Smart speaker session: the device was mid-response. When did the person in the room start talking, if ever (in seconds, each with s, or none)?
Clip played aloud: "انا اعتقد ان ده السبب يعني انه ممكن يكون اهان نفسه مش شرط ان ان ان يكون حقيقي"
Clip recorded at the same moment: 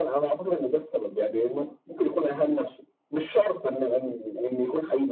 none